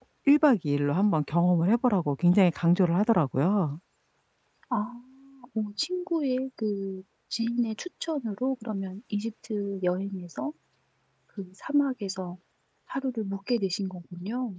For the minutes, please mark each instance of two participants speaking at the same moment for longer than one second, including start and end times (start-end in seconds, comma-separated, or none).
none